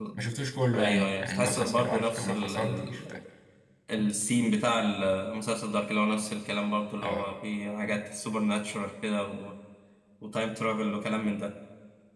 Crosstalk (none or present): present